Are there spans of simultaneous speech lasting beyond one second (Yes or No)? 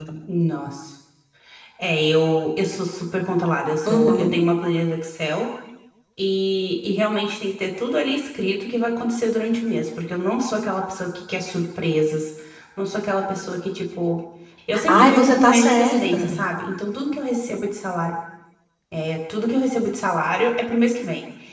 Yes